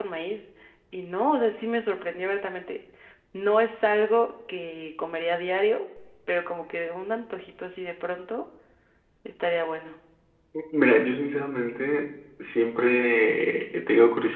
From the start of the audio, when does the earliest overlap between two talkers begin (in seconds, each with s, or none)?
none